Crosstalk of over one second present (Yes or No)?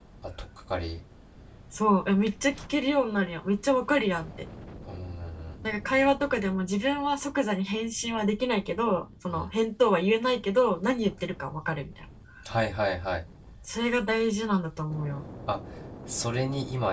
No